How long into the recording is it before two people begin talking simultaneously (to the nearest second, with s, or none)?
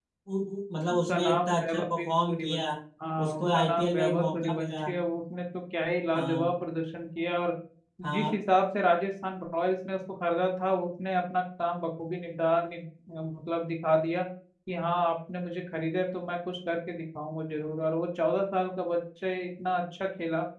1 s